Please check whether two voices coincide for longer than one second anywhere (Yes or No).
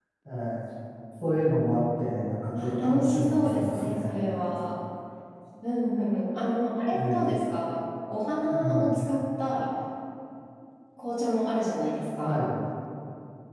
Yes